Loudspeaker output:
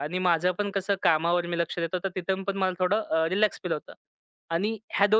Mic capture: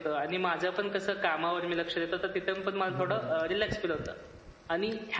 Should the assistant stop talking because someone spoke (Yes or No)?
Yes